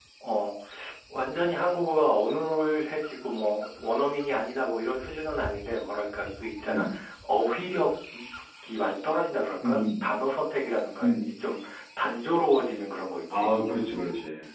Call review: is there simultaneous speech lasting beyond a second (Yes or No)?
No